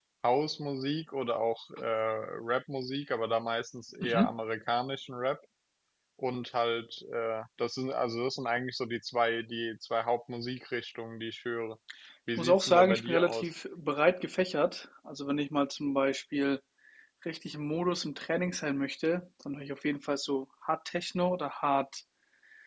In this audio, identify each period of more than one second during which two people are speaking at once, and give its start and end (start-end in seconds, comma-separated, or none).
12.3-13.5